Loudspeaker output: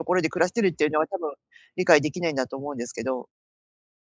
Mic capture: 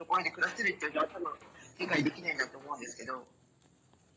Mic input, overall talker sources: echo only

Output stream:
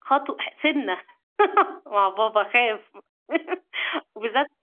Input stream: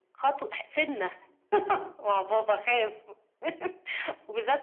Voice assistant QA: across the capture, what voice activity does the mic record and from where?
echo only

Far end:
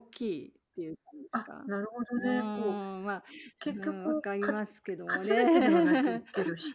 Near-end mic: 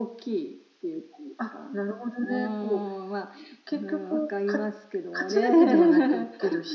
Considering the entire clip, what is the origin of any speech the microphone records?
echo only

